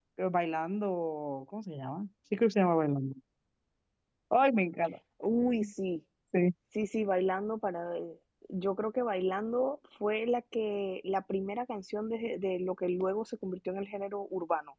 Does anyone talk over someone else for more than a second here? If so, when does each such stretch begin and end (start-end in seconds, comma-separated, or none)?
none